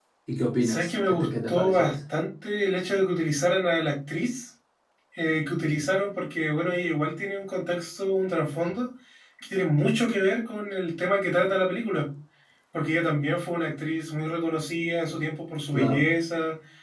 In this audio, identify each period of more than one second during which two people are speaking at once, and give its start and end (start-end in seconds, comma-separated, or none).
0.6-1.9